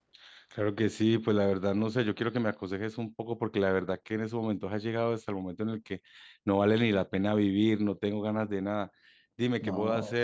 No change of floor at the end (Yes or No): Yes